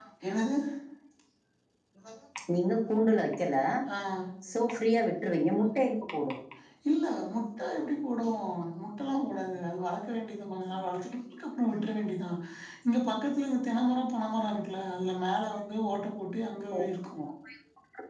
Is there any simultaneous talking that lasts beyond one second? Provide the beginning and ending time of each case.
none

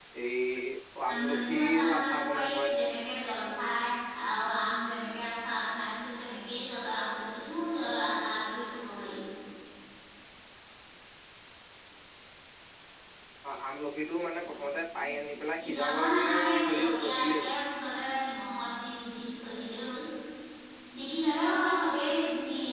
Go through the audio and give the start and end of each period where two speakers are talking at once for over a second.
1.1-2.7, 15.7-17.5

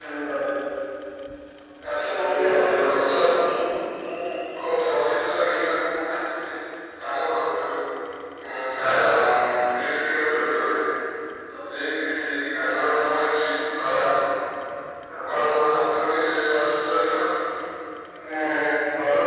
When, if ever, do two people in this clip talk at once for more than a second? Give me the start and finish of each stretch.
1.9-3.1

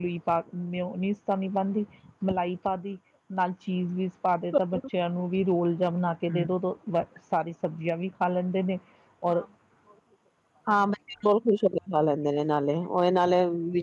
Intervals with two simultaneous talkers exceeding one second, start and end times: none

